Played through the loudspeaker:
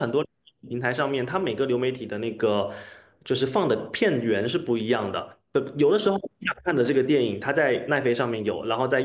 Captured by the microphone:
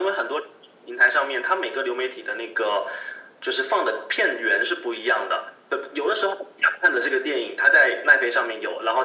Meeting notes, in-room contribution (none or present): none